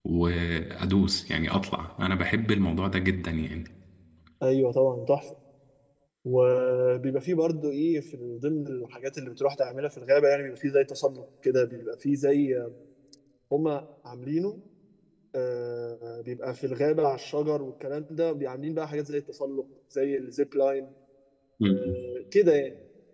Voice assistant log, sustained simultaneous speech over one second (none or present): none